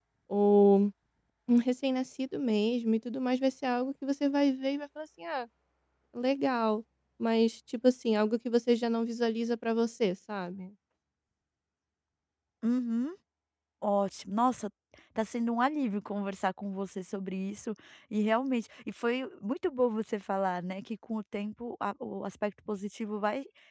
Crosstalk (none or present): none